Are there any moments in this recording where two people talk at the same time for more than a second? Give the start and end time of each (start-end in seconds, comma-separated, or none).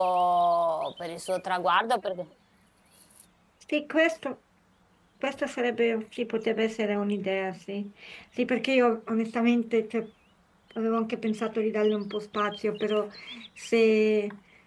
none